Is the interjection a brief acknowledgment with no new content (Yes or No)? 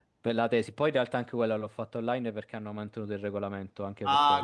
No